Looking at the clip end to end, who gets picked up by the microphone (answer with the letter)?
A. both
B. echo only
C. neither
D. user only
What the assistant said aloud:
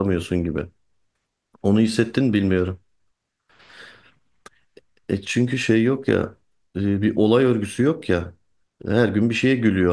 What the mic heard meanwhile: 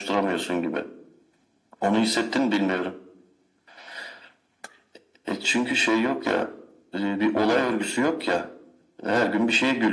B